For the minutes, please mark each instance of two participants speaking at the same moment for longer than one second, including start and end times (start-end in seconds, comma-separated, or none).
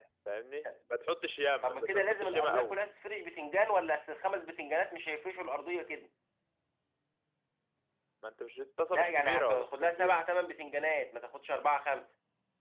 1.6-2.8, 8.9-10.2